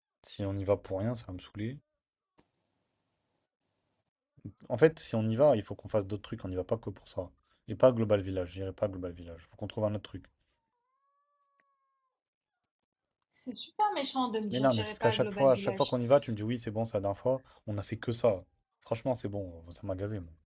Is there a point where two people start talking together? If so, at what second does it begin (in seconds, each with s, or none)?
14.5 s